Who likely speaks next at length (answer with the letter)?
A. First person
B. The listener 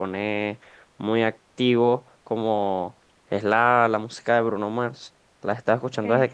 A